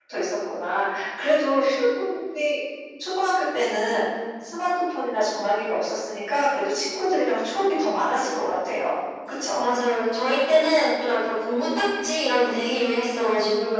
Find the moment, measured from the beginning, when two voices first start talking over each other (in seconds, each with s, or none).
none